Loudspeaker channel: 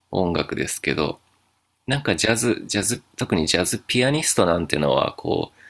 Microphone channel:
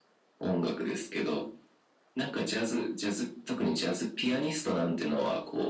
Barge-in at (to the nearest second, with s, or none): none